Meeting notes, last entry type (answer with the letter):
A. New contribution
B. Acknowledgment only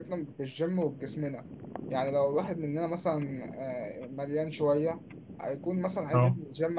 B